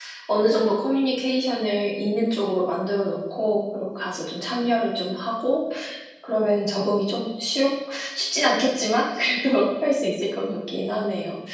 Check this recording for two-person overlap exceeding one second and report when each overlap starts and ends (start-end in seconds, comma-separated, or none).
none